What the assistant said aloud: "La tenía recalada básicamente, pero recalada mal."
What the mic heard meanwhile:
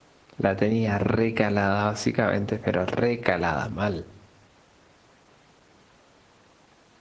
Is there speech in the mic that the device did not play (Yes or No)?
No